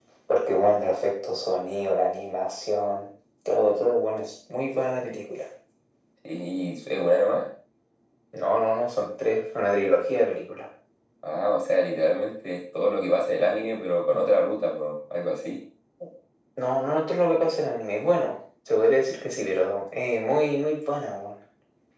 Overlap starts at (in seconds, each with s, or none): none